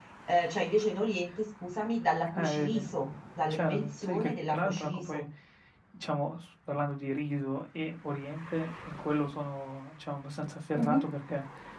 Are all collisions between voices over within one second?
No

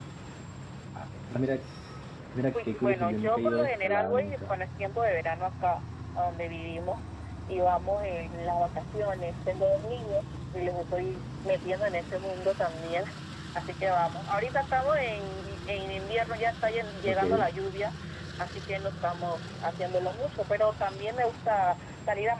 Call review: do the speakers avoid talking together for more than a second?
No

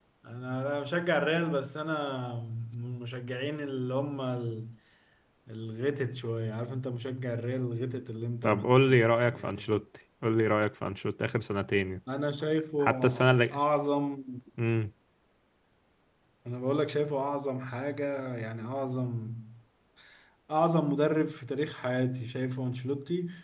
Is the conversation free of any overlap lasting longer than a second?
No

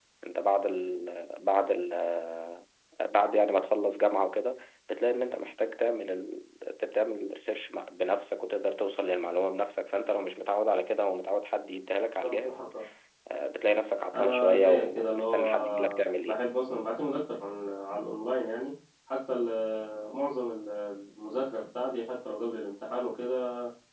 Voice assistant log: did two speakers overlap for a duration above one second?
Yes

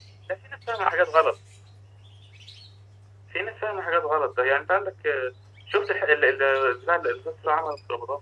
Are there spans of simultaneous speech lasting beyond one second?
No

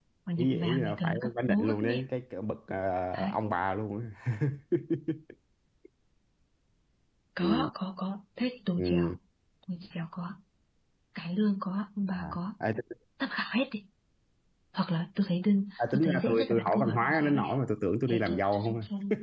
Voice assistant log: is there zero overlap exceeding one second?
No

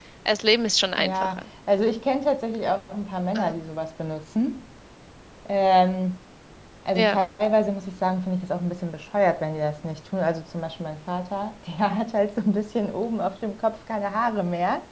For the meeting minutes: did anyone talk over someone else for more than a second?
No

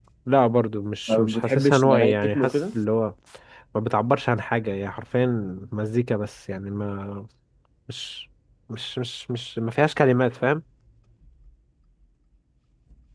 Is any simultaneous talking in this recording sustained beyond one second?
Yes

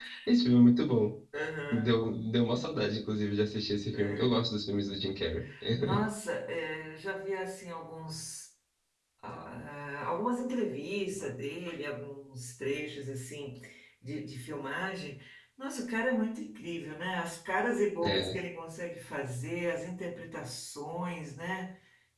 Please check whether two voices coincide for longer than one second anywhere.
No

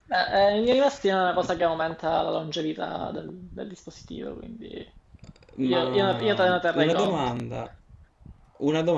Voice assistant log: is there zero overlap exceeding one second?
No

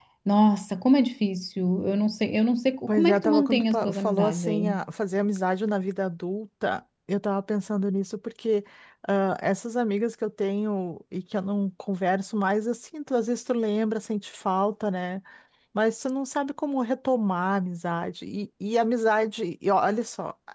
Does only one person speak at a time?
No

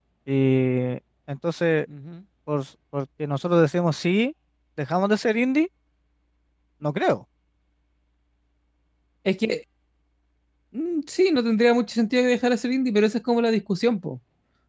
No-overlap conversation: Yes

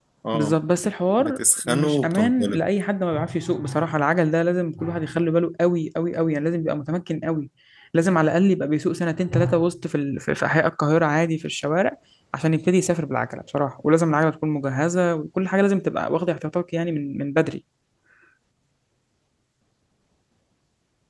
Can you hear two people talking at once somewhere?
Yes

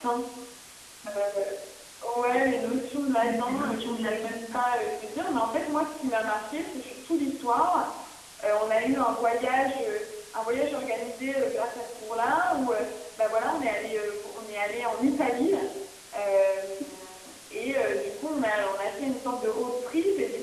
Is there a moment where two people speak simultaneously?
Yes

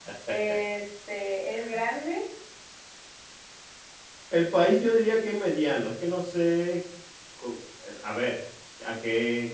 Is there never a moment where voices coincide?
Yes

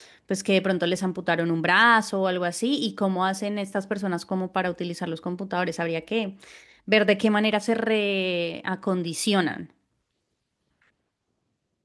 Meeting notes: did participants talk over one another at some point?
No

